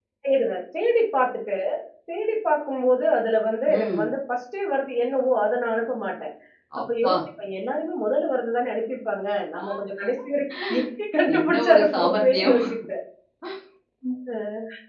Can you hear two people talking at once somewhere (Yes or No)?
Yes